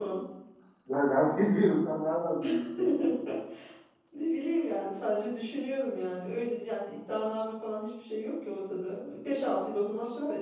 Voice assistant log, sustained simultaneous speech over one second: none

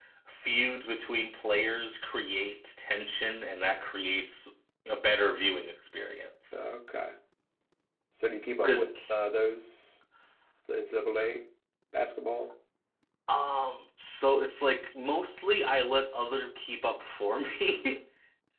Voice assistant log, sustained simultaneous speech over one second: none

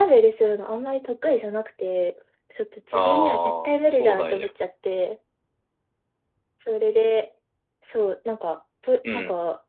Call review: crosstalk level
present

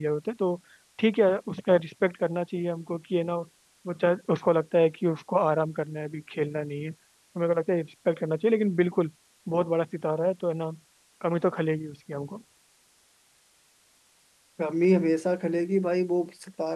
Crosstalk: none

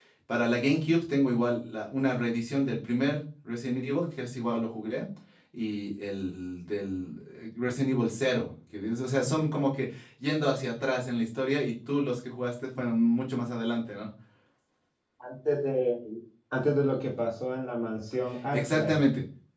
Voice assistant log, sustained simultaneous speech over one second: none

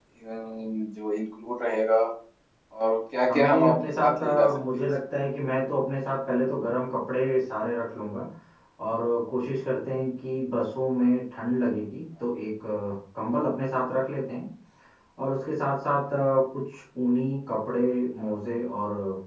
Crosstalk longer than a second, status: present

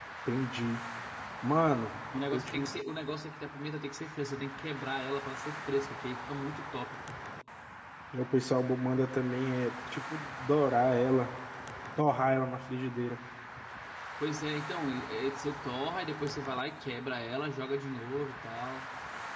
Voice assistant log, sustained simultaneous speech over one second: none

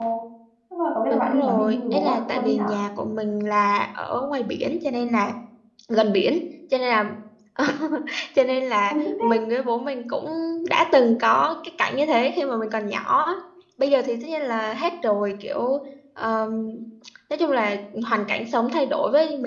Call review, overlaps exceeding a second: present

